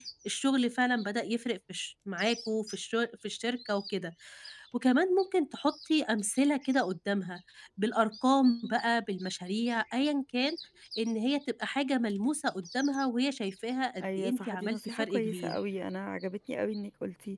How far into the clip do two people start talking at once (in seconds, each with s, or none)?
14.0 s